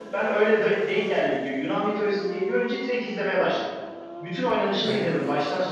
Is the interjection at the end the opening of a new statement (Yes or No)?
No